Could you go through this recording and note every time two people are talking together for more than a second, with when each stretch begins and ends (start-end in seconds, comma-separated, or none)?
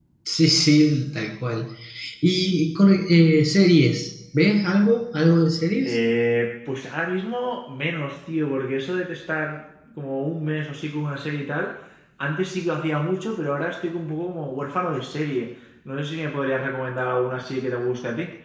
none